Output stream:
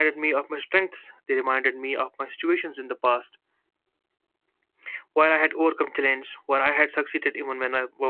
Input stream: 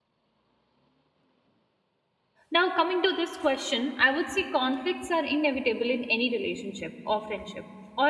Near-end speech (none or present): present